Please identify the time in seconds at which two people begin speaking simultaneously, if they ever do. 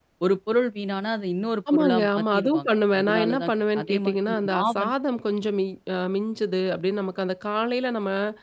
1.7 s

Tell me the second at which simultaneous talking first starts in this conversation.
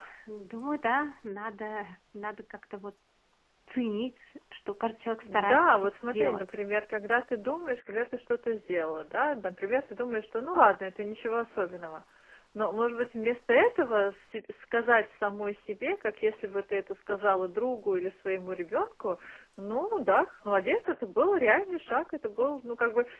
5.2 s

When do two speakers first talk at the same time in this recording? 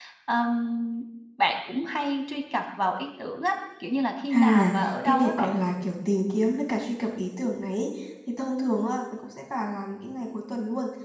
4.3 s

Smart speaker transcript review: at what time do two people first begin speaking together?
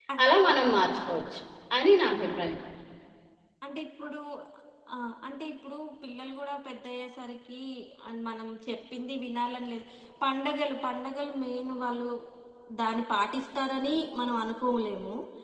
none

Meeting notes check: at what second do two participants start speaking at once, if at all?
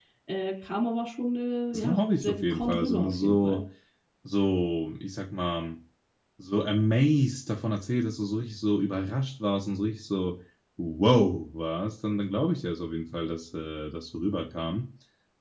1.7 s

